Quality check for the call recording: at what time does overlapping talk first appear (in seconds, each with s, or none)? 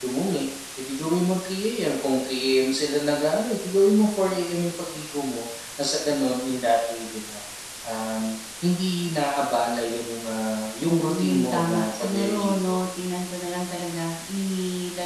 11.1 s